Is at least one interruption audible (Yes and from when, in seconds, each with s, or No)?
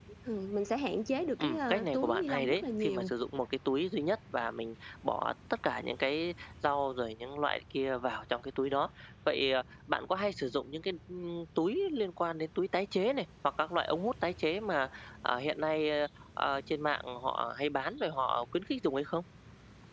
Yes, from 1.4 s